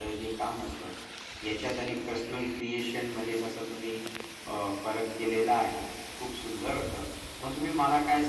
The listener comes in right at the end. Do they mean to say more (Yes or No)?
No